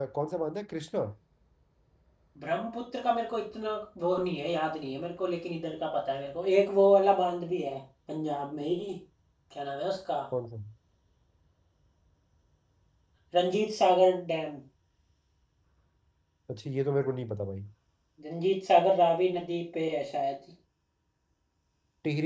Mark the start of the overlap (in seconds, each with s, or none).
none